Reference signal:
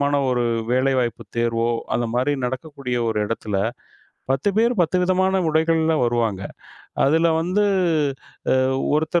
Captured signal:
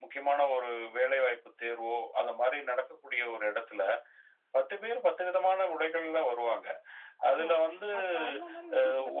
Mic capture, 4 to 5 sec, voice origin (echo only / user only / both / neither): echo only